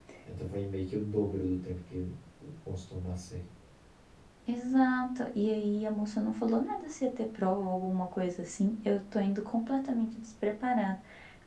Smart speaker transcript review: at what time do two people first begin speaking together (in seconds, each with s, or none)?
none